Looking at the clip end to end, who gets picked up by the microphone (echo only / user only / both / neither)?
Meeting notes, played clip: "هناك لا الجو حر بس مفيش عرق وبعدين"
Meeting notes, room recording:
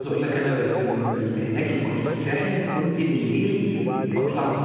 both